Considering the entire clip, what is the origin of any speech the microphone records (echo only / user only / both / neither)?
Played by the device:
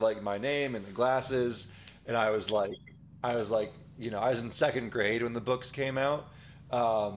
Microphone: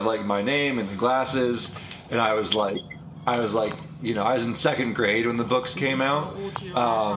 both